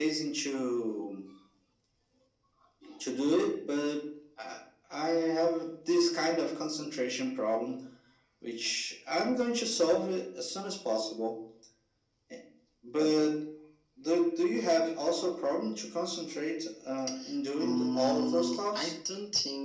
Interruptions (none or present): present